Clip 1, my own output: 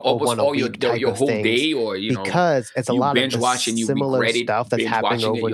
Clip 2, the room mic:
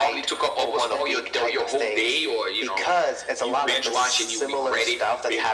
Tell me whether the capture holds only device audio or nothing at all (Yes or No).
Yes